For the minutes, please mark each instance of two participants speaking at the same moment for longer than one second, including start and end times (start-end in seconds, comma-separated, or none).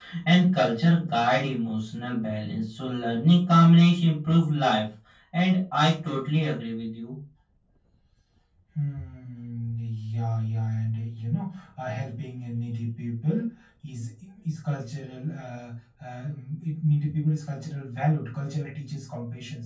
none